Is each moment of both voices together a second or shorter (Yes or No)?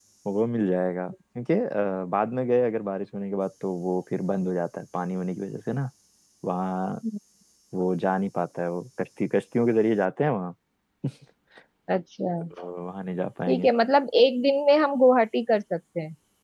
Yes